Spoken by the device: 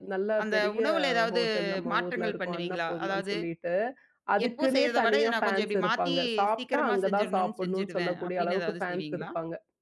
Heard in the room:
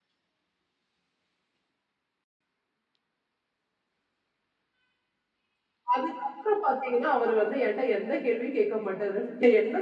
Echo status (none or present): none